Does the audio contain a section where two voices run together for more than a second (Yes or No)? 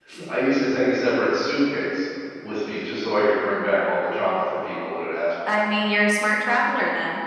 No